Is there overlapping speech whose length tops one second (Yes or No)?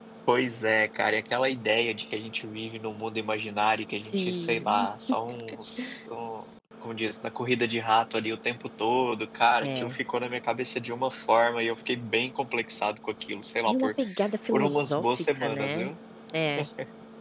Yes